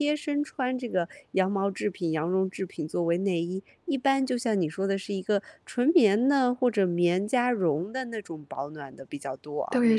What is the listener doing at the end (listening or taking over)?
taking over